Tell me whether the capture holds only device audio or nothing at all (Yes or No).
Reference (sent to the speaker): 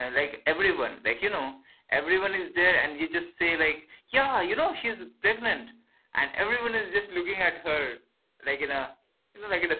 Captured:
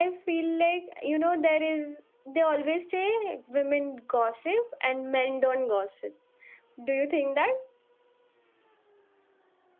No